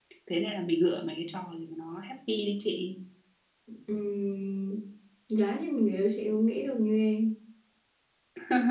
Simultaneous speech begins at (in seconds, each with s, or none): none